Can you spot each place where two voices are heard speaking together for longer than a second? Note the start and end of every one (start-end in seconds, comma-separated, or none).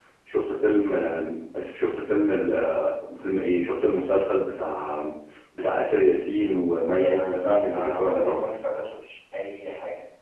6.9-8.4